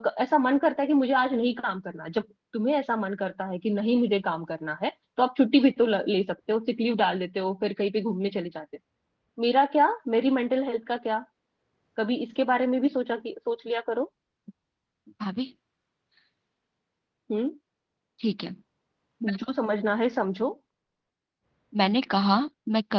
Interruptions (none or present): none